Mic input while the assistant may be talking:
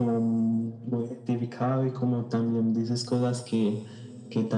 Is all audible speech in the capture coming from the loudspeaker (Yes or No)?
Yes